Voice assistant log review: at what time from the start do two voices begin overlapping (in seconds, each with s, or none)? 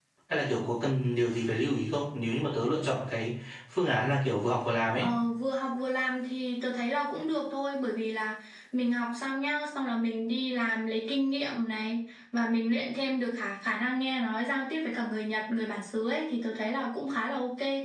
none